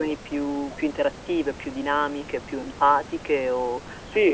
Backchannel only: No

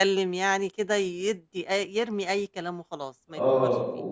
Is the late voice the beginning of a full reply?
Yes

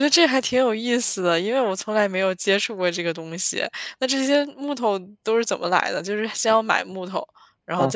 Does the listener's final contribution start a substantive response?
Yes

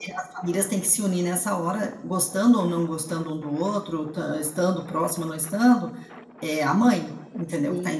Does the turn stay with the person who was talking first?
No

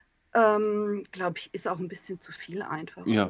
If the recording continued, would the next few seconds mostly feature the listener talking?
Yes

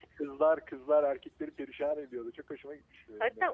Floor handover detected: Yes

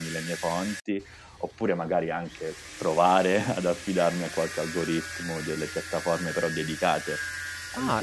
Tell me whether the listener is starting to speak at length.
Yes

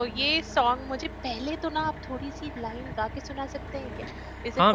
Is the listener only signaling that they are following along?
No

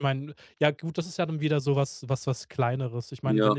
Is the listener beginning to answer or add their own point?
No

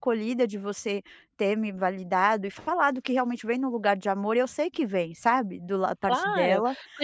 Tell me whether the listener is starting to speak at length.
Yes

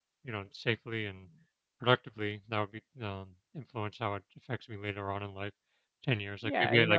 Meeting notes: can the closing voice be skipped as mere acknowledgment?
No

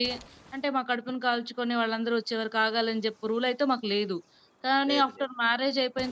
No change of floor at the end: Yes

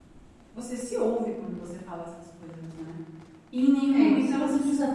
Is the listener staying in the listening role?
No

